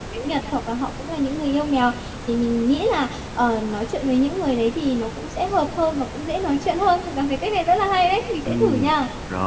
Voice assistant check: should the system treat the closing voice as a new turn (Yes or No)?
Yes